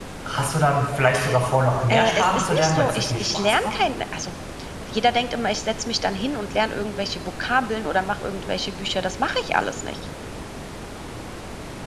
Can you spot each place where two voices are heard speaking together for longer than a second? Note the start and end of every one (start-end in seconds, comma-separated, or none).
1.9-3.7